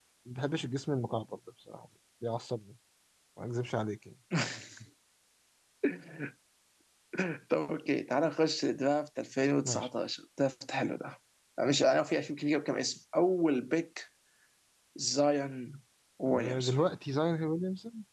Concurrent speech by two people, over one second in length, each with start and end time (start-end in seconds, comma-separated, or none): none